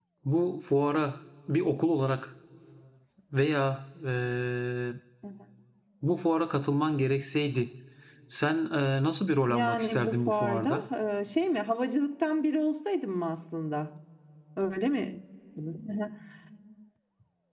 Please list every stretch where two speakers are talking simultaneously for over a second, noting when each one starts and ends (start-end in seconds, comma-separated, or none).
9.5-10.8